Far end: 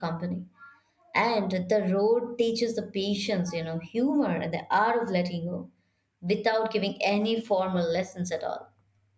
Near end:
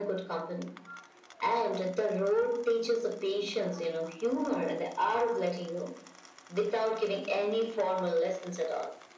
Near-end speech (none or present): none